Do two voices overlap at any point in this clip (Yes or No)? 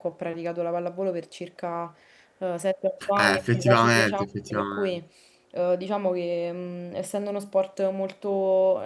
Yes